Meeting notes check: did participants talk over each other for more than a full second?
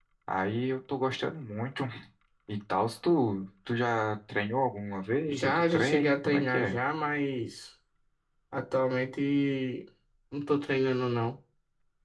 Yes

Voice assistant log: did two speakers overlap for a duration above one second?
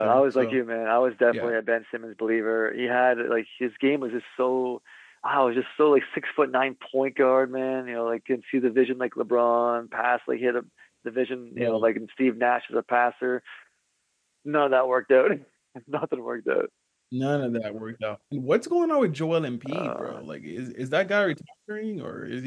No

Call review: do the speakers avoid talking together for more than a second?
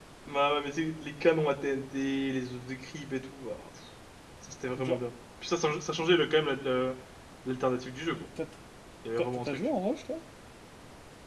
Yes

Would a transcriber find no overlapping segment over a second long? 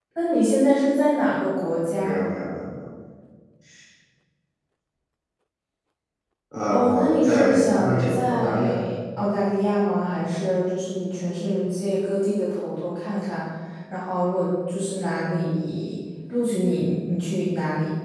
No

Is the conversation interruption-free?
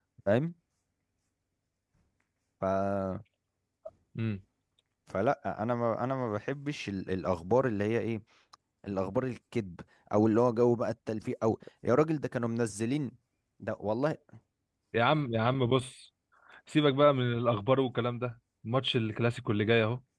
Yes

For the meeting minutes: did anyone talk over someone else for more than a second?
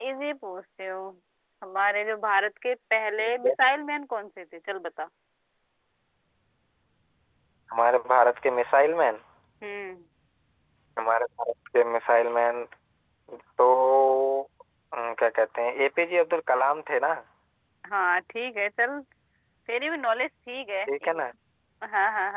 No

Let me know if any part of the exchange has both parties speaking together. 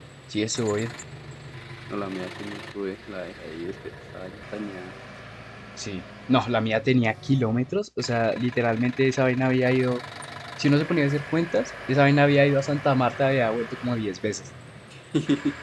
No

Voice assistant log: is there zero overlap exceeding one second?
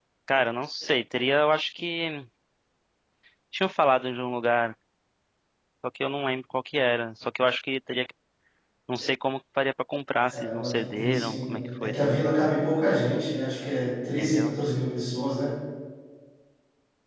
No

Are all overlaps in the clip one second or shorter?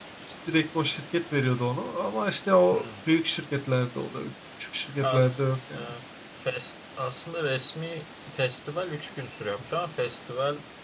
Yes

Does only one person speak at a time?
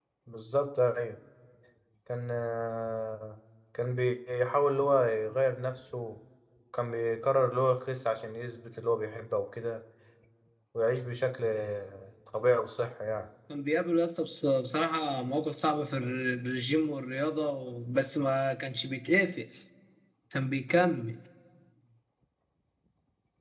Yes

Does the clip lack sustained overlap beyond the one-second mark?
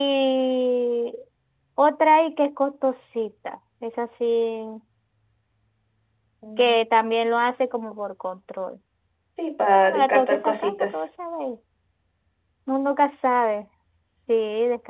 No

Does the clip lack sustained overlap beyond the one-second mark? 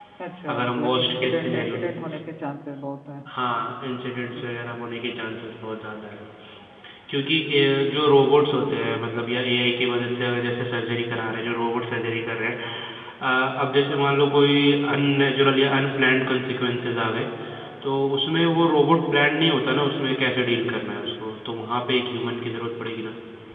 No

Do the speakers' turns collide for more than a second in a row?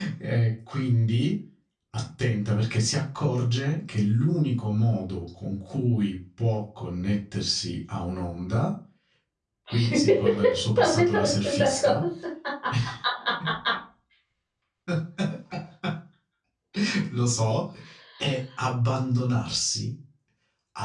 Yes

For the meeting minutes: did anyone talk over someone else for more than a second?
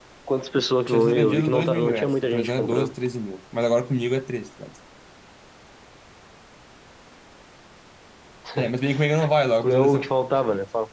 Yes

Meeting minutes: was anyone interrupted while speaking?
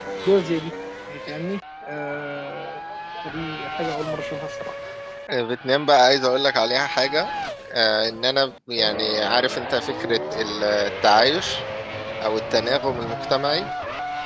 No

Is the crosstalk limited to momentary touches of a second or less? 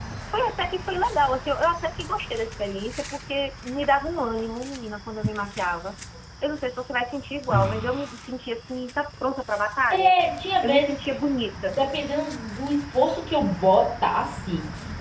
Yes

